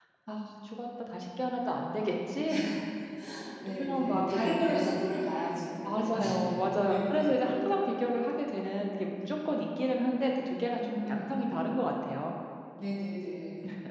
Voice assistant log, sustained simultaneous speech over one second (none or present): present